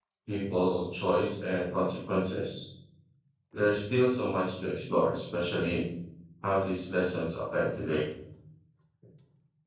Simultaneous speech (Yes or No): No